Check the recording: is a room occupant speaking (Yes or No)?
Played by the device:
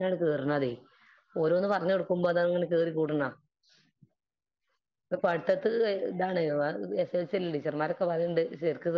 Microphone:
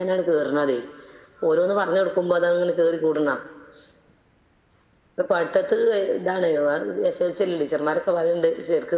No